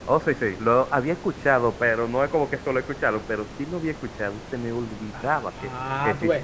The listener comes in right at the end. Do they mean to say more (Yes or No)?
Yes